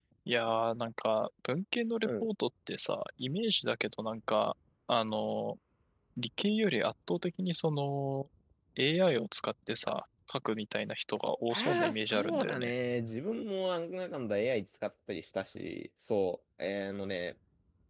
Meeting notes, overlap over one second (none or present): present